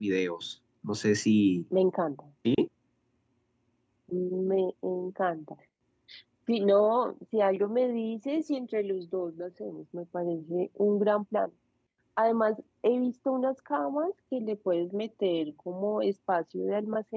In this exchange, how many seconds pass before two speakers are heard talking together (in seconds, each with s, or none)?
none